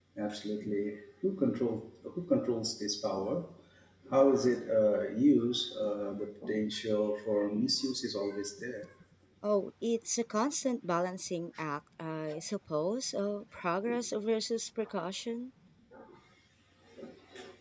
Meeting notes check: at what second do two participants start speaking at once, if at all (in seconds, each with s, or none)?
none